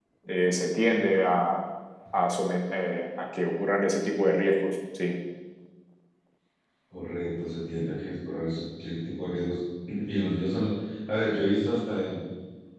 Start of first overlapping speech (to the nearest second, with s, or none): none